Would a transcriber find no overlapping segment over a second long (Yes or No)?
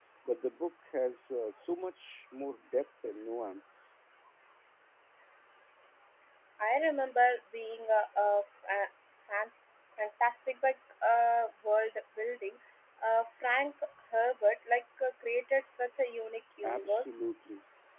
Yes